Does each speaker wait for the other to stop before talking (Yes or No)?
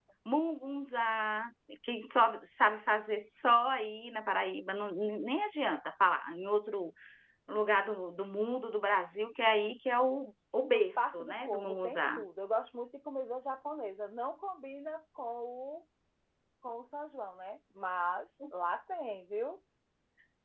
No